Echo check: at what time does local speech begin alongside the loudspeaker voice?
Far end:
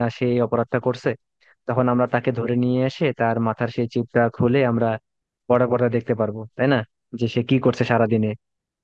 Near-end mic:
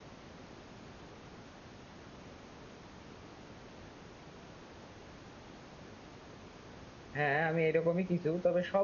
7.2 s

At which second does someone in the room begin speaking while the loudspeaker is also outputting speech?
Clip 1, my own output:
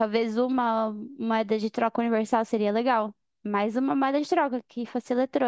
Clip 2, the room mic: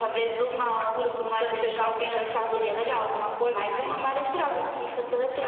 0.8 s

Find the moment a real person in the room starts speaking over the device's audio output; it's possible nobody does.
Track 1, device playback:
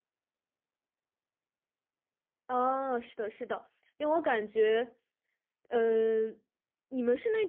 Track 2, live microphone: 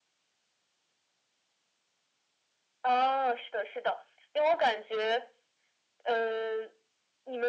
none

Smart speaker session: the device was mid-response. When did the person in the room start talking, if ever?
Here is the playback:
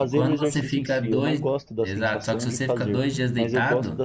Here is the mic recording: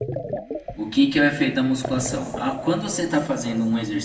0.7 s

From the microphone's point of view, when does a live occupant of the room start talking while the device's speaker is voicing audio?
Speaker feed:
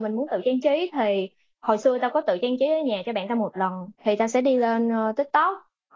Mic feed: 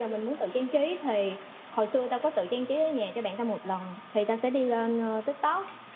none

